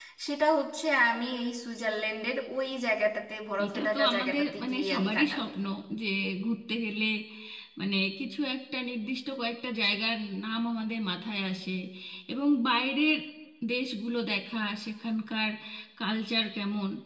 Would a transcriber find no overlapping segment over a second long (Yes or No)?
No